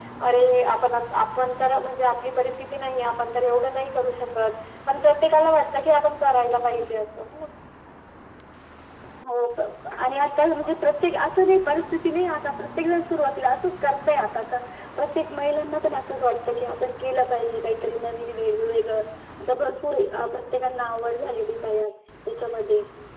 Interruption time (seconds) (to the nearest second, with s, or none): none